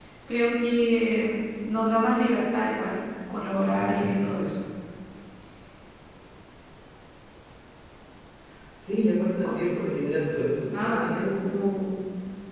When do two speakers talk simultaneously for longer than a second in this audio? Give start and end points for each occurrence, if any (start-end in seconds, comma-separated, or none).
none